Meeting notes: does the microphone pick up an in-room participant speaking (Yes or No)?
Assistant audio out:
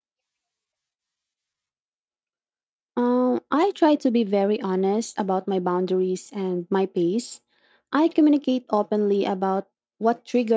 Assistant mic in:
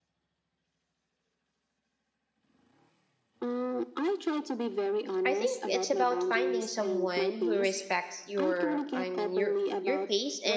Yes